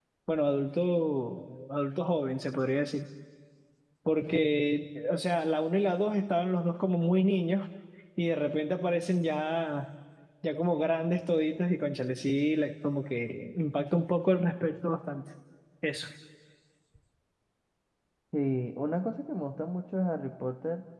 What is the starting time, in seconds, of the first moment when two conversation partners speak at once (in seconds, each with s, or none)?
none